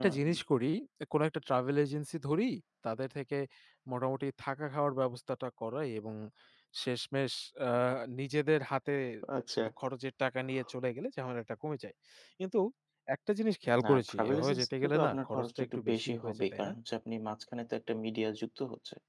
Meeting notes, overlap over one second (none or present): present